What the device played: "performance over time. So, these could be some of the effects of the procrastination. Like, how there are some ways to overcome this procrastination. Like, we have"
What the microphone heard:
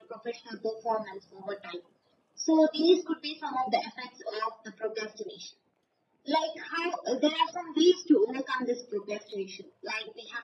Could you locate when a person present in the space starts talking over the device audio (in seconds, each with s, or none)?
none